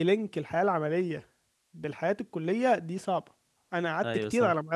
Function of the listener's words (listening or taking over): listening